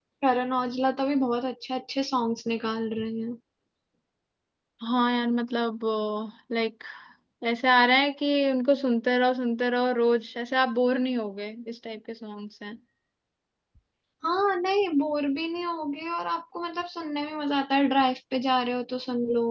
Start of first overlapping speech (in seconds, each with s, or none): none